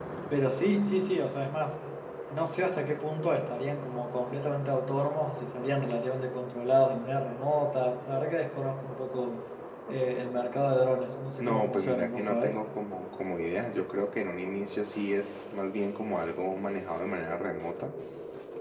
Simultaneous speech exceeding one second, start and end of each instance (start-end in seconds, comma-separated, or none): 11.4-12.6